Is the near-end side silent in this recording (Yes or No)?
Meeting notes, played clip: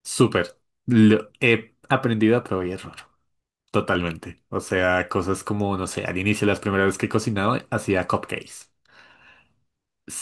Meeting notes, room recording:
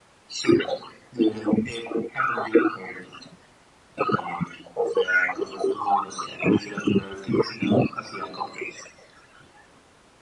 Yes